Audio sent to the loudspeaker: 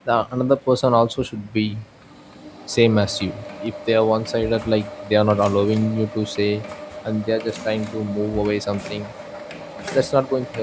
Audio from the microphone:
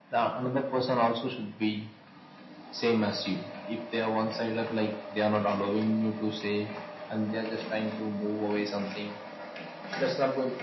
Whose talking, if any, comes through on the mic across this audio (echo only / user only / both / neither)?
echo only